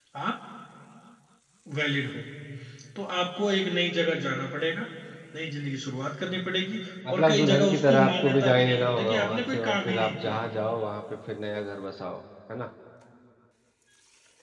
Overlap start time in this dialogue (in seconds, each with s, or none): 7.0 s